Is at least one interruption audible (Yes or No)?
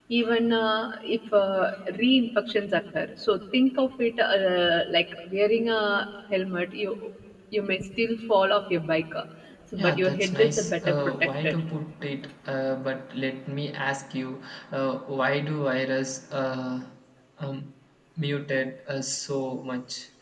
Yes